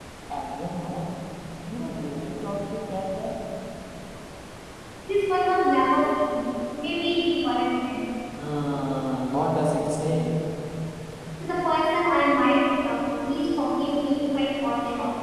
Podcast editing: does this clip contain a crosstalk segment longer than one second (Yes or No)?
No